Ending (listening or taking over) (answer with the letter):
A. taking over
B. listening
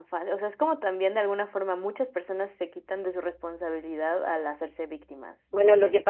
A